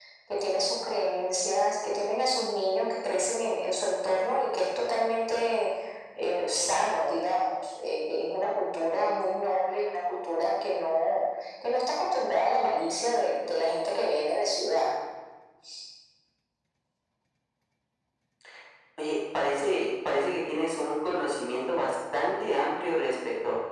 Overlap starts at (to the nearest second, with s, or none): none